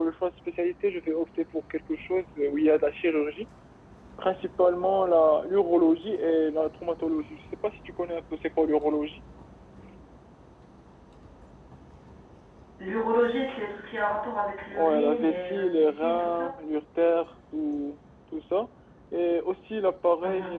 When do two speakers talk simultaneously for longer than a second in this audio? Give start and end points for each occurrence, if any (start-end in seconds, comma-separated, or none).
14.7-16.5